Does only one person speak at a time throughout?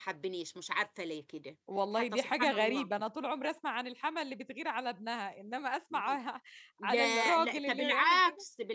No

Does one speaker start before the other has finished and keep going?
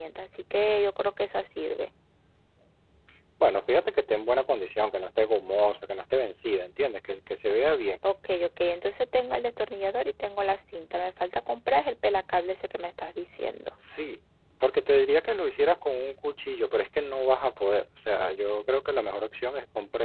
No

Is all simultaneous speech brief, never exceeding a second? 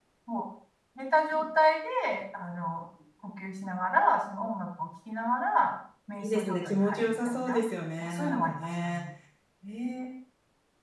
No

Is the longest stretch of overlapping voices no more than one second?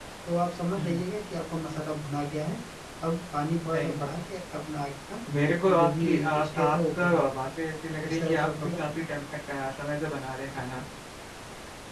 No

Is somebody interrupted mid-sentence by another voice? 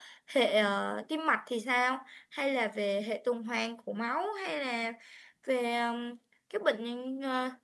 No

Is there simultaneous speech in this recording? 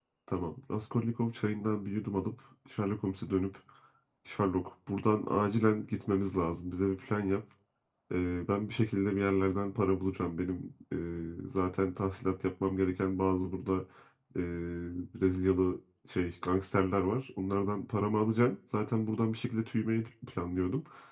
No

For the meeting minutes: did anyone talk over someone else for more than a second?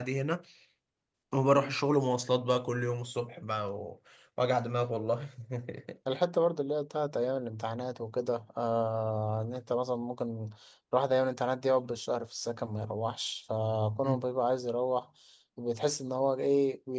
No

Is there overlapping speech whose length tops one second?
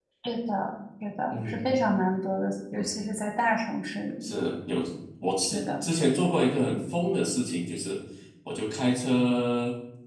No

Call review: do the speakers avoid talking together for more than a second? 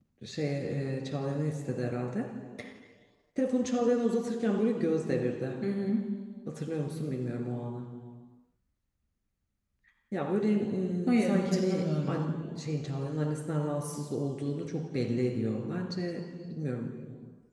No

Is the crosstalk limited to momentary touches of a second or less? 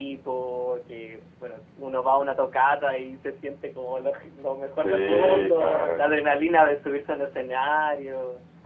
No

